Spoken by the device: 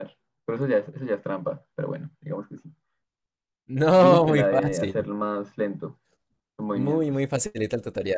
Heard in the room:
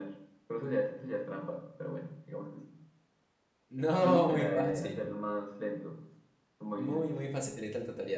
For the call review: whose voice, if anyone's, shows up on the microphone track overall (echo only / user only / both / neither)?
echo only